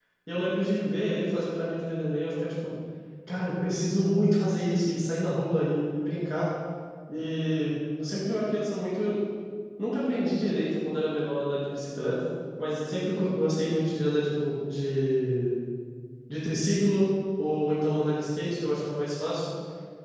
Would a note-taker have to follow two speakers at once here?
No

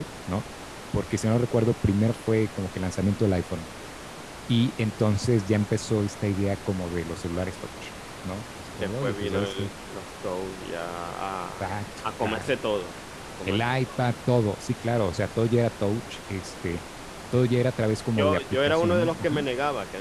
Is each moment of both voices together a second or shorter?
No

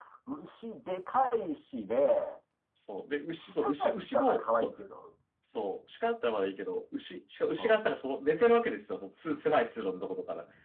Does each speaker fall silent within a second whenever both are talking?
No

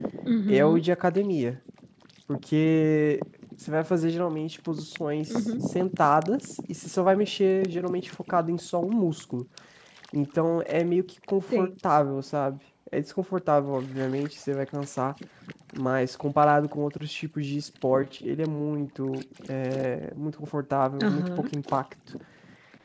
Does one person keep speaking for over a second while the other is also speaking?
No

